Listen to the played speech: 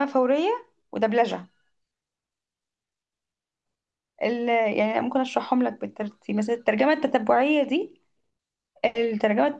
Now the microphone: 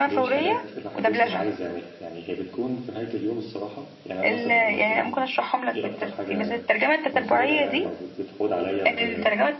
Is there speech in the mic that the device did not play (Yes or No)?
Yes